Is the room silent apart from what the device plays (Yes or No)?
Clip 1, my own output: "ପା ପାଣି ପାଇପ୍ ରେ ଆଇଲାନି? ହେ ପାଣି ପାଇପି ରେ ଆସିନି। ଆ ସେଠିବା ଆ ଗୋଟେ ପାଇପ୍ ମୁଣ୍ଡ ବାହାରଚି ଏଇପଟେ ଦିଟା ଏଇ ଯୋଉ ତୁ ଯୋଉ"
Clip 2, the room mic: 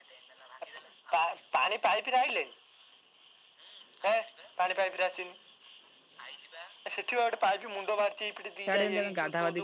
No